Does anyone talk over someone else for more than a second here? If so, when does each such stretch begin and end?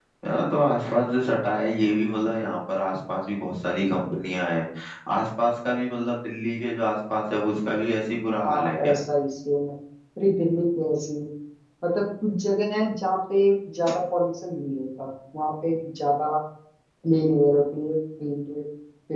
none

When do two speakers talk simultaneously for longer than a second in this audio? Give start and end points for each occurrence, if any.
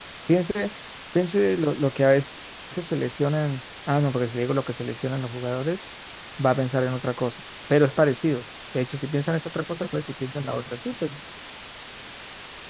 none

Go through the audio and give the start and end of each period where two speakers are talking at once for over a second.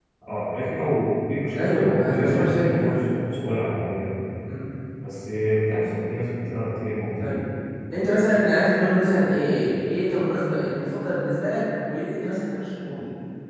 1.5-2.8

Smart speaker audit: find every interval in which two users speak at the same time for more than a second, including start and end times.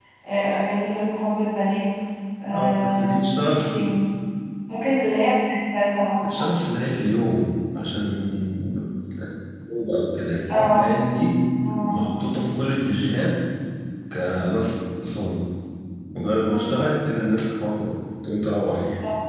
2.5-4.0

